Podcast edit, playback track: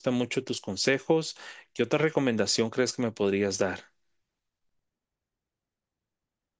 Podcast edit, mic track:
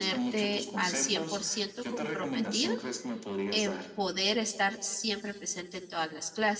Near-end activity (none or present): present